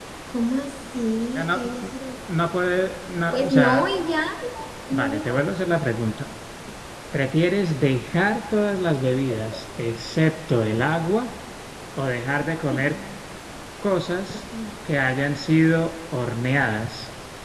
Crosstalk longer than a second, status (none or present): none